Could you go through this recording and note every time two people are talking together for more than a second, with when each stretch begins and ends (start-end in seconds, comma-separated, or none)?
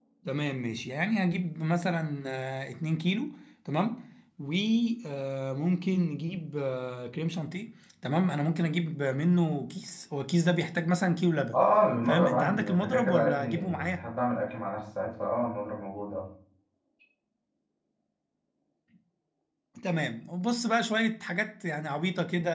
12.1-14.0